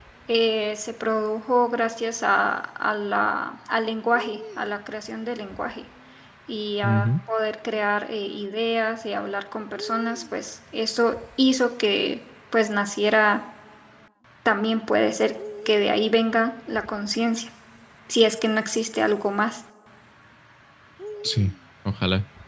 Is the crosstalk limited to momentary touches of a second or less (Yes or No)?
Yes